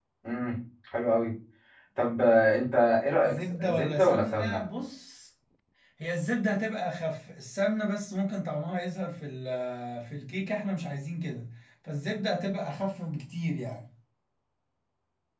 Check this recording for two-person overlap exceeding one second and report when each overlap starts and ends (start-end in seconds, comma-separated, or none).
3.2-4.7